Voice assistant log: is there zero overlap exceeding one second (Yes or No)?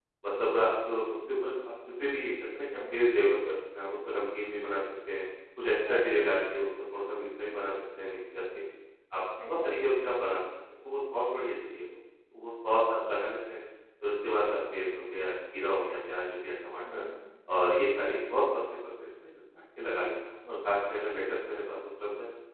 Yes